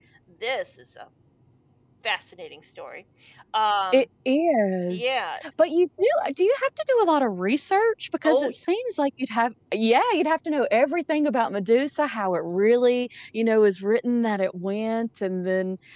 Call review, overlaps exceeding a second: none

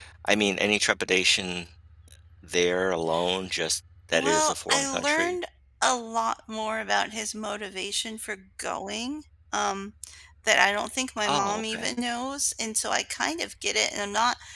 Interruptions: present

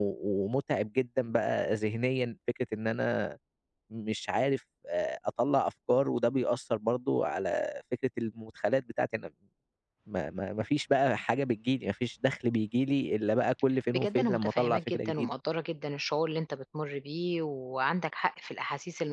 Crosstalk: present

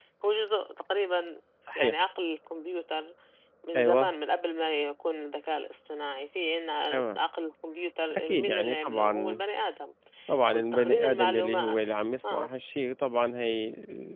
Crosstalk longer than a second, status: present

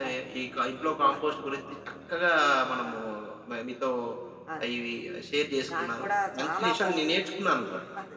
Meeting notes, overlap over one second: present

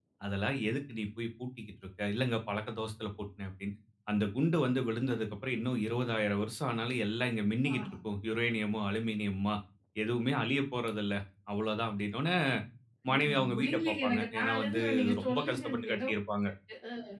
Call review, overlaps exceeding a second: present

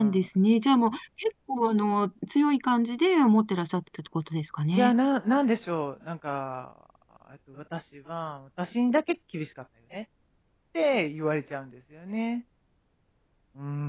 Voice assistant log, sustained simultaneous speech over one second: none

